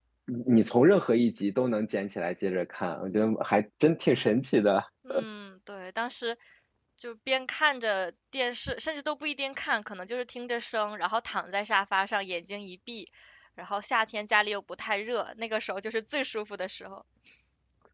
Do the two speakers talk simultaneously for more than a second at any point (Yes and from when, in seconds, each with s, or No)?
No